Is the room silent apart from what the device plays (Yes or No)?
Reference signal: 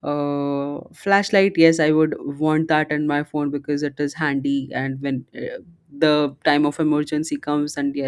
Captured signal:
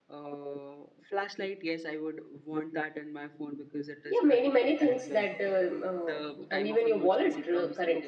No